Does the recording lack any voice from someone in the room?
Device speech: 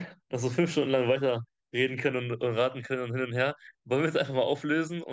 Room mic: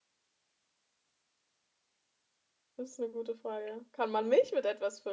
No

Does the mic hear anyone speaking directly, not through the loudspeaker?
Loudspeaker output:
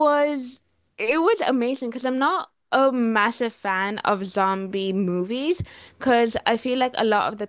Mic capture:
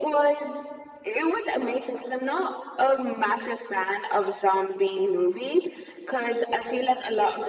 No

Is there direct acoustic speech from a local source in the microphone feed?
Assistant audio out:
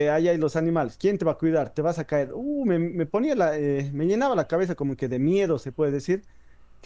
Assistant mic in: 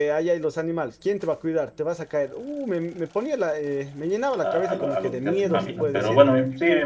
Yes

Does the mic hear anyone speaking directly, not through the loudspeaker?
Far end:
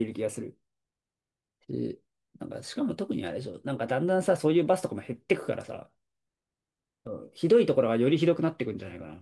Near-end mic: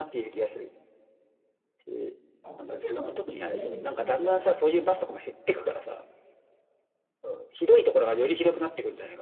Yes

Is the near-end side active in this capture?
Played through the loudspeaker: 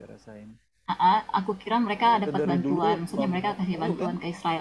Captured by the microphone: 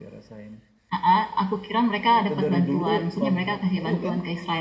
No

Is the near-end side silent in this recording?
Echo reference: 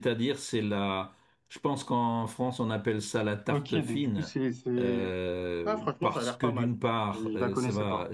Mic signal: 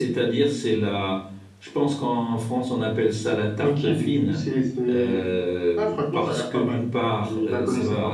Yes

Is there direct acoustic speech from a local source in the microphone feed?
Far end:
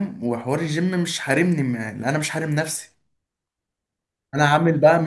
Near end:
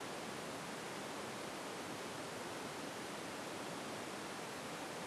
No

